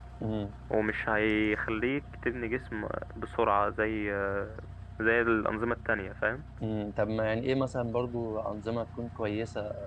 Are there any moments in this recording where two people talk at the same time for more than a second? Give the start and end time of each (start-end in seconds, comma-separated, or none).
none